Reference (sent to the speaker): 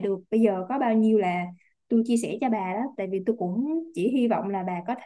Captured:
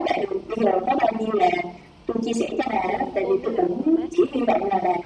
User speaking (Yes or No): Yes